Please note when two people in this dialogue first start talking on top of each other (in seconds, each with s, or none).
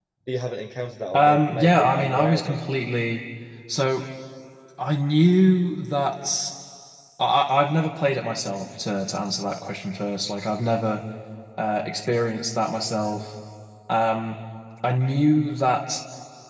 1.1 s